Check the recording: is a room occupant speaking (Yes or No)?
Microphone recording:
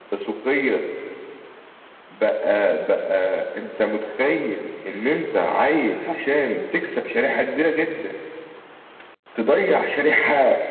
No